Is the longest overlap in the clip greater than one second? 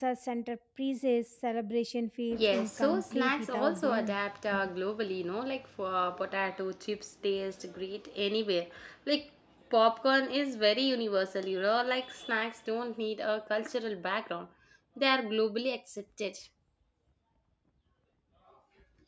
Yes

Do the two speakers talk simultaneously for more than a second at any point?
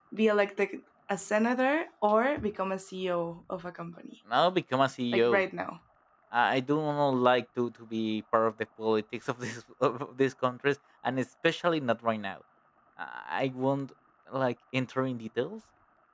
No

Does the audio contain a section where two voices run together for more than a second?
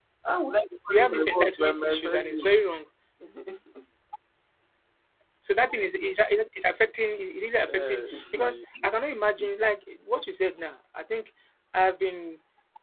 Yes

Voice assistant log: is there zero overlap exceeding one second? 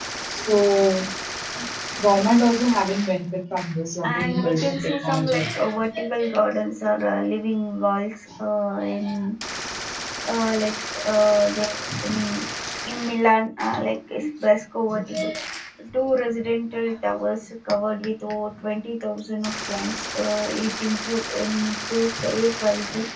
No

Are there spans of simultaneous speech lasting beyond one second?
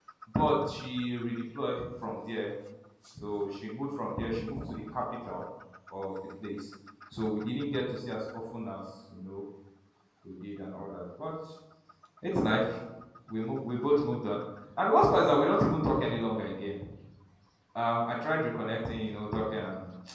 No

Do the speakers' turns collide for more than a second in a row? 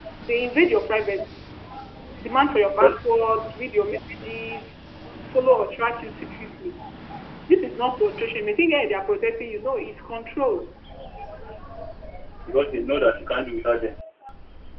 No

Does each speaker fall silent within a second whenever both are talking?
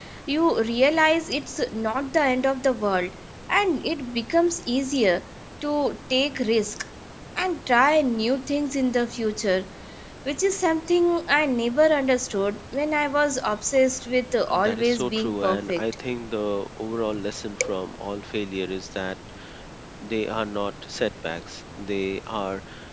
No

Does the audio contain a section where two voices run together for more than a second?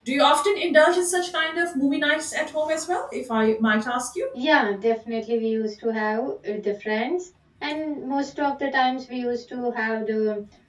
No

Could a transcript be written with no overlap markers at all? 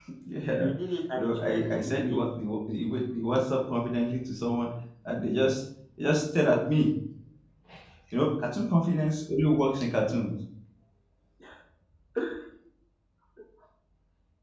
No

